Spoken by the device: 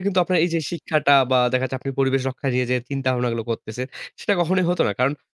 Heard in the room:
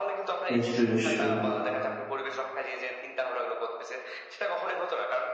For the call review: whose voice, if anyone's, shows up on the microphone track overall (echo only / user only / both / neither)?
both